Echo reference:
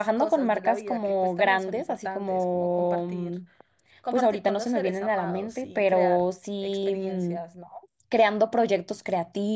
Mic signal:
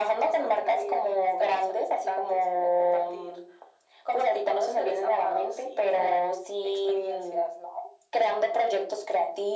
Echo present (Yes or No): Yes